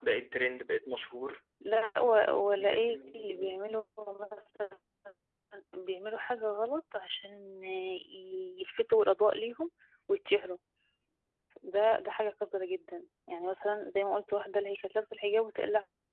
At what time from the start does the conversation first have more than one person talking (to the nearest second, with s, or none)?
2 s